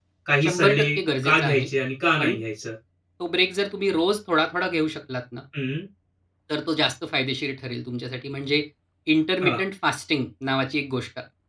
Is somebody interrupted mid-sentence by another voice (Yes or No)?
Yes